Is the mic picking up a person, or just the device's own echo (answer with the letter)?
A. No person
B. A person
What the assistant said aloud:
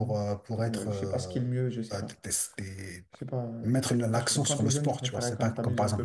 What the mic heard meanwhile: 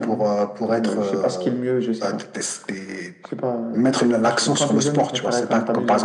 A